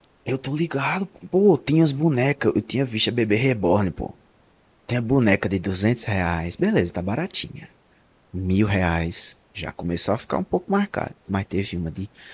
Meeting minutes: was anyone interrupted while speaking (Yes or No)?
No